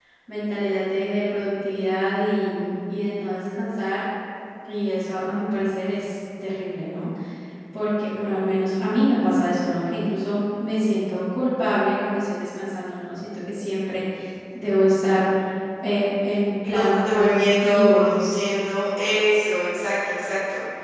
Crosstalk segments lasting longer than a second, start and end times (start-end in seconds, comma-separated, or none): 16.7-18.1